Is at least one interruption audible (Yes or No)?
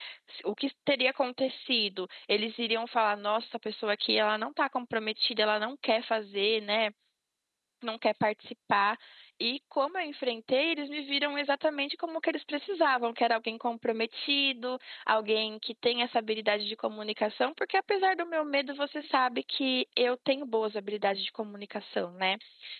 No